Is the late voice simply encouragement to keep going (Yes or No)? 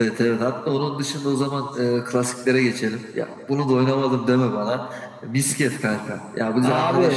Yes